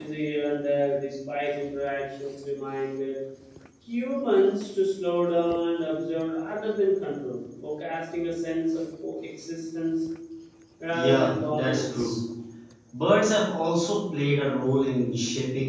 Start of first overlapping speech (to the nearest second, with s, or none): 11 s